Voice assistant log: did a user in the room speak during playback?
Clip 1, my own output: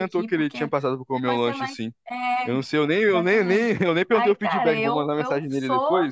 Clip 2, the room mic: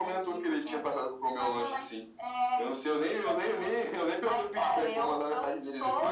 No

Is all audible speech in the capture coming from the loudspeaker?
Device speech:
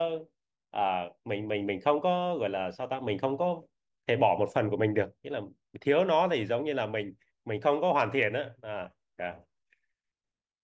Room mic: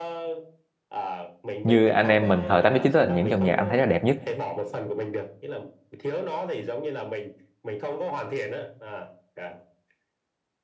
No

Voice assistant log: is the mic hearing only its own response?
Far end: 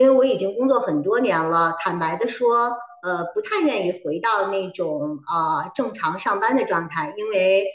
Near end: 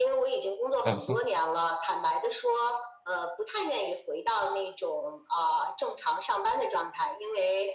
No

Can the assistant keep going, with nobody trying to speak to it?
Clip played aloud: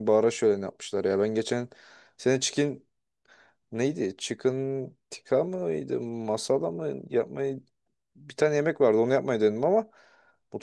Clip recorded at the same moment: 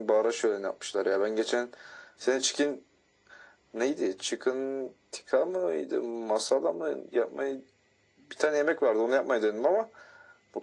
Yes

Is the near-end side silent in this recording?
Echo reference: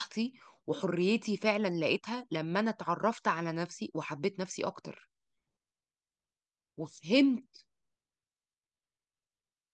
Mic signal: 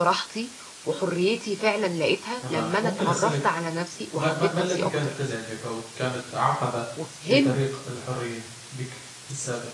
No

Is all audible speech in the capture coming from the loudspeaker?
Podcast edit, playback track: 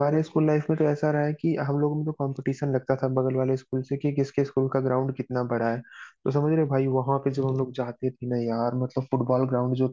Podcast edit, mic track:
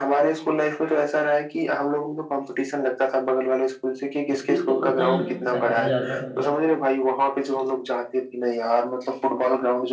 No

